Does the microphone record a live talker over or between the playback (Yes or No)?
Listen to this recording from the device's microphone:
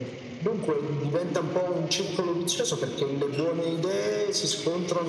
No